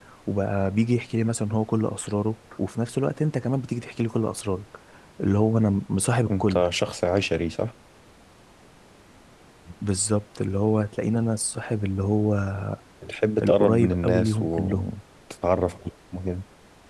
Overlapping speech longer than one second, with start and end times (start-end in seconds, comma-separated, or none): 13.4-14.9